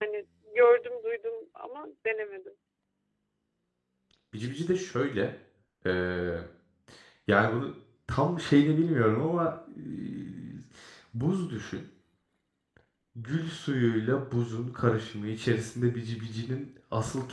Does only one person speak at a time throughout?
Yes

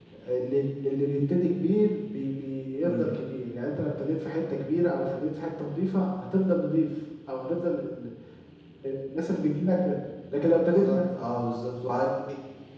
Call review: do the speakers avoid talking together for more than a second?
Yes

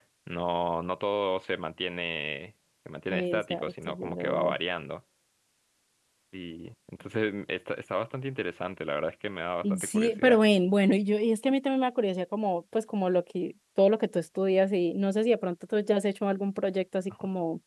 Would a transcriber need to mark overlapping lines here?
Yes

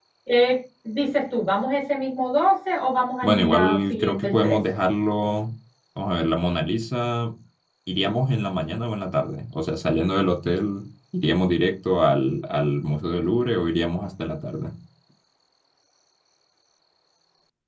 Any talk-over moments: Yes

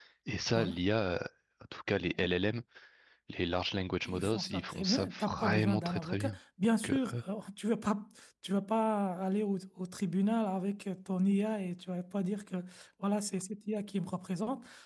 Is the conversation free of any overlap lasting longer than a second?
No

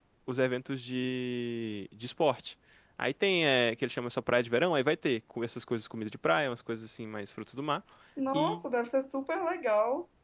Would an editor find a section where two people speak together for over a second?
No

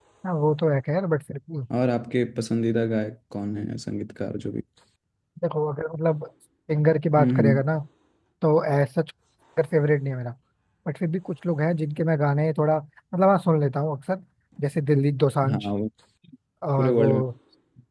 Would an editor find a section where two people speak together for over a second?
No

